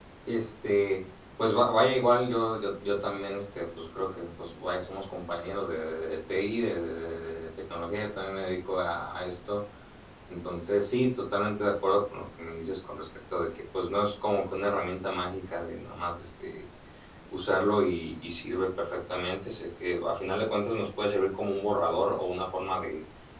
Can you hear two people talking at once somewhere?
No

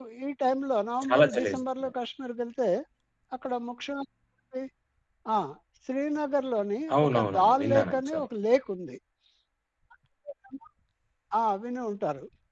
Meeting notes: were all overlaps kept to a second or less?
No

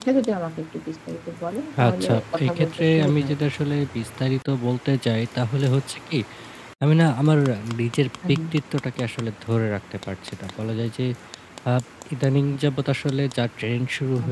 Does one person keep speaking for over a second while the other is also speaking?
Yes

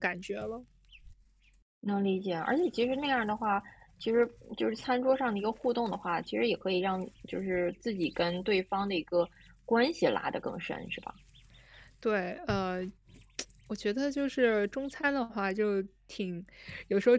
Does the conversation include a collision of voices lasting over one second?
No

